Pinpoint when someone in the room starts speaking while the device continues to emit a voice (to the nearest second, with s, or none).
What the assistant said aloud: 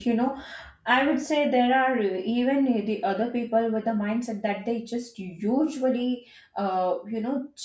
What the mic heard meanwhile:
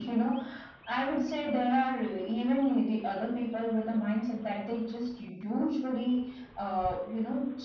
none